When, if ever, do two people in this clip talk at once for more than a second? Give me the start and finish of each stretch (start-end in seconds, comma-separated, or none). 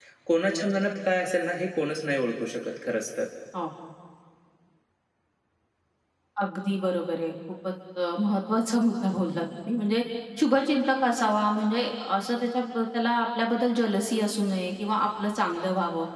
none